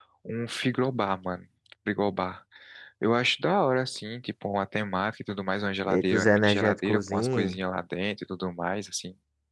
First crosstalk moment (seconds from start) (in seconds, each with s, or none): 5.9 s